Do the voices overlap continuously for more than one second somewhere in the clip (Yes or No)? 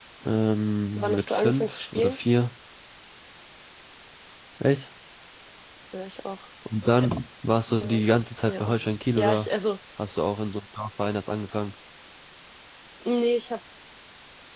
Yes